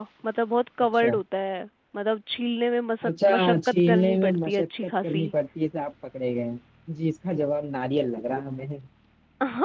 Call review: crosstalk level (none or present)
present